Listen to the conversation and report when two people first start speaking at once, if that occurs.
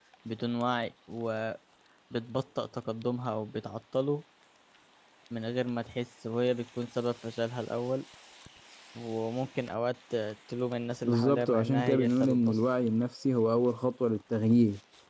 11 s

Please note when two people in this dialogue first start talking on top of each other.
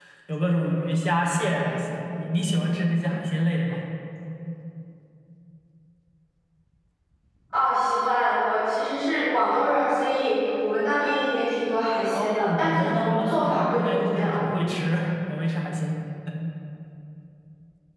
12 s

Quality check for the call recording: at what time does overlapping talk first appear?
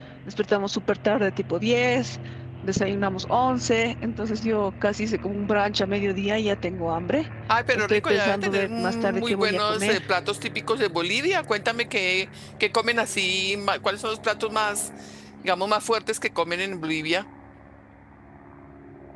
7 s

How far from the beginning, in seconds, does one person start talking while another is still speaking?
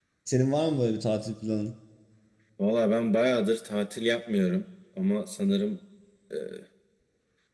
none

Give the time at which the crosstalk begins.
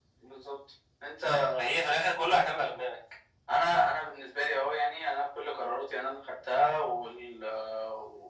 none

